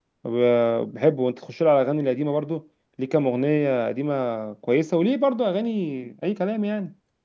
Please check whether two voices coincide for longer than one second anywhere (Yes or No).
No